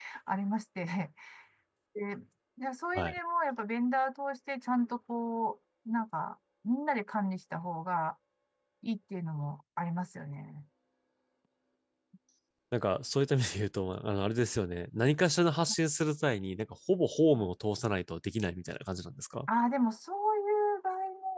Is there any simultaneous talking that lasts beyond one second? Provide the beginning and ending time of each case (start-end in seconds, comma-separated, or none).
none